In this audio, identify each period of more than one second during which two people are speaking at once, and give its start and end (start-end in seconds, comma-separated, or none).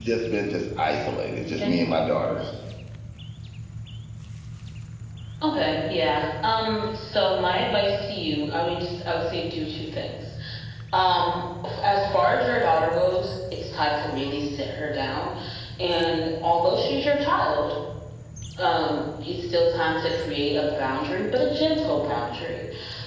none